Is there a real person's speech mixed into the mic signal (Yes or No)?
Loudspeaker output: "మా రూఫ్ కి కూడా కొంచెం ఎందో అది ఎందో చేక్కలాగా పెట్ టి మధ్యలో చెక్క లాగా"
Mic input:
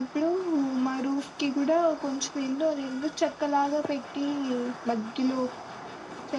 No